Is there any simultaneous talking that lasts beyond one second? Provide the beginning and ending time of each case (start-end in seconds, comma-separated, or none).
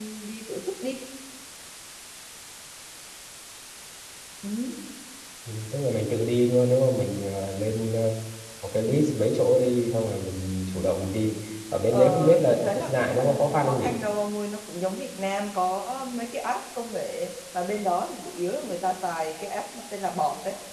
11.9-13.9